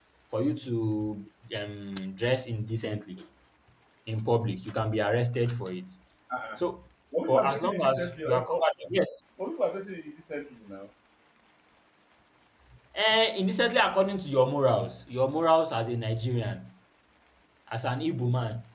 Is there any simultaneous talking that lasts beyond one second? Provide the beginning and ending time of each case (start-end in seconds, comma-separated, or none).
7.3-8.7